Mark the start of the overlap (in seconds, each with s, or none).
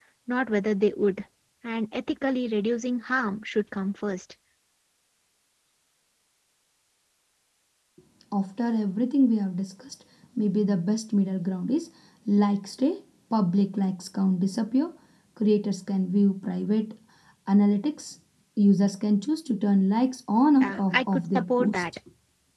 20.6 s